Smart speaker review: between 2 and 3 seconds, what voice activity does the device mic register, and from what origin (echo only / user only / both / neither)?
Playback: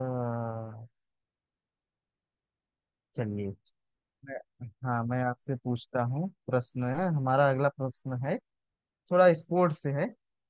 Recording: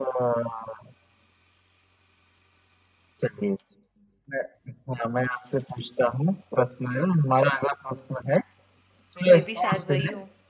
neither